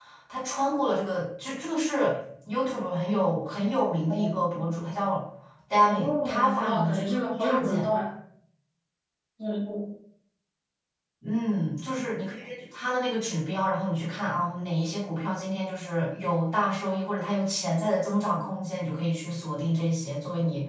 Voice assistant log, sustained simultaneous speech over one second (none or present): present